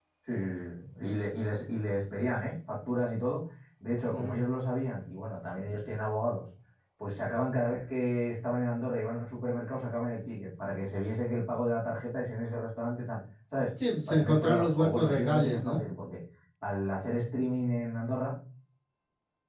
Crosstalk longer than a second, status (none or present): present